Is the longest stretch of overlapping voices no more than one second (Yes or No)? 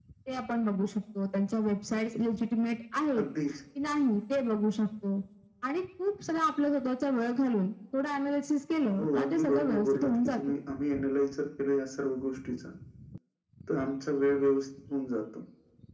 No